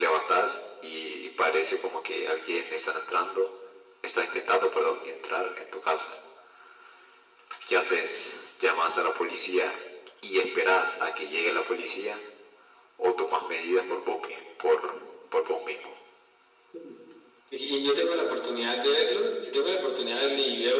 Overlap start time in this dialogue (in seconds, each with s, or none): none